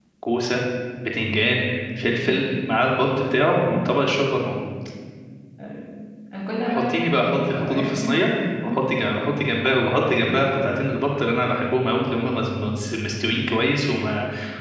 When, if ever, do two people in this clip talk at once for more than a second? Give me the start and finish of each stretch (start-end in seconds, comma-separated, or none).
6.7-7.9